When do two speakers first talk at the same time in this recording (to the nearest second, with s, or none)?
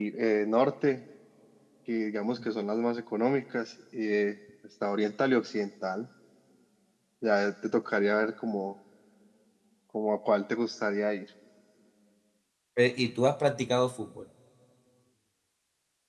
none